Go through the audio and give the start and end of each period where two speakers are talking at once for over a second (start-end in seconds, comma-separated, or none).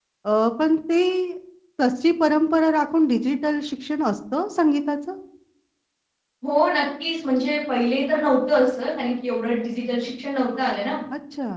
none